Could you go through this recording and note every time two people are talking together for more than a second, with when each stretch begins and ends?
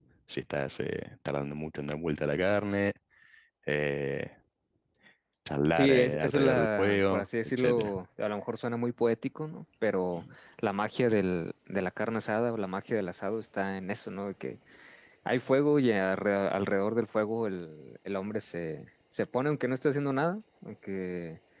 5.7-7.9

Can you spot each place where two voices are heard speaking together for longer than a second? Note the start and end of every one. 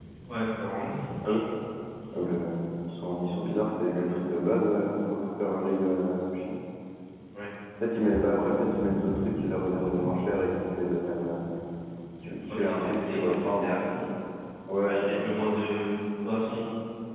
12.5-13.7

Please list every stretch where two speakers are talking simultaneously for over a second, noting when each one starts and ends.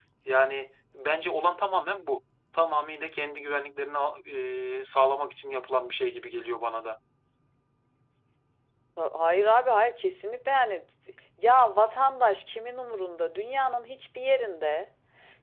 none

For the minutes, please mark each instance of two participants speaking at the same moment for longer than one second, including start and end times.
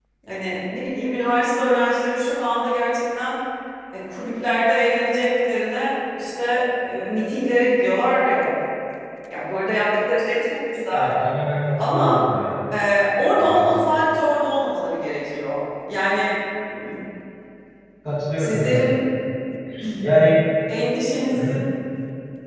none

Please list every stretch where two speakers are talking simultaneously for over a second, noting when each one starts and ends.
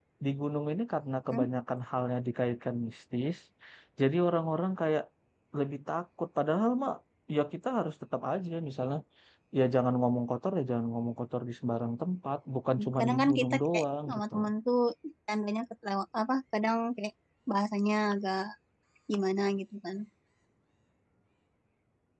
13.0-14.3

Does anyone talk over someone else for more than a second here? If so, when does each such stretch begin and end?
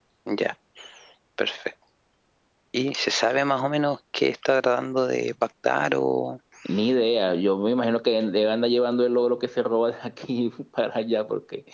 none

